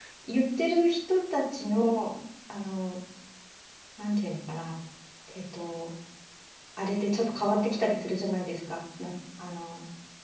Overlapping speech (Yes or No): No